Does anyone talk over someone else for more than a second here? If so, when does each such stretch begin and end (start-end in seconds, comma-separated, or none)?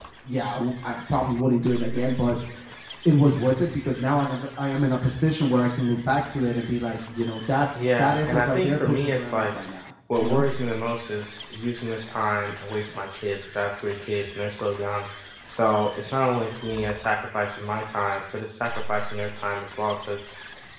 8.0-9.5